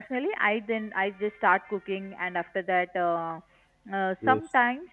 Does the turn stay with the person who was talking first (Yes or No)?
Yes